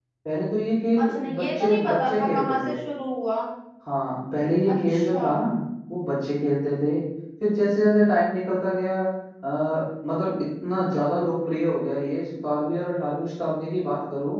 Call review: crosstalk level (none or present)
present